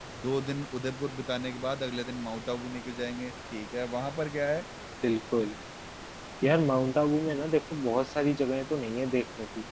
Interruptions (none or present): none